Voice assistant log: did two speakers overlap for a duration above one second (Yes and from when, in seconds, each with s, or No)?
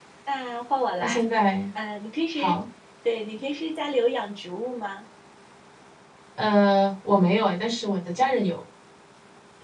No